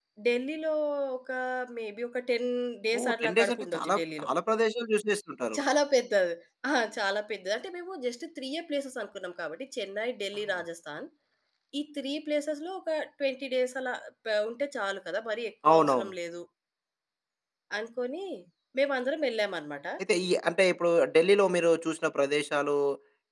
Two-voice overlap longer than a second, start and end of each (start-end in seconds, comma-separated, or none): 3.0-4.3